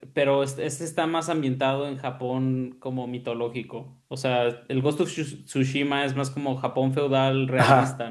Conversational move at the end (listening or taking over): taking over